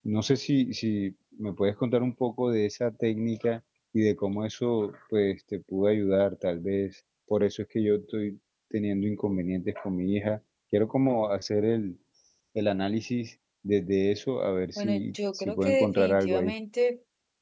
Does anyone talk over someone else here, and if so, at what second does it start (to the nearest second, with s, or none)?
15 s